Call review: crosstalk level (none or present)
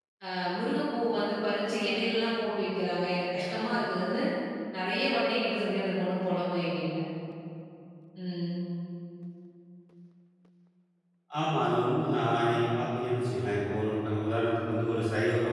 none